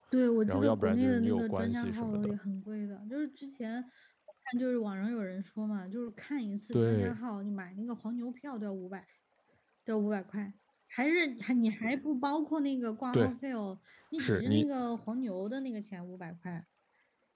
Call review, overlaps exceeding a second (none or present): present